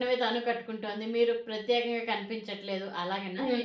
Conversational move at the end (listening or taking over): taking over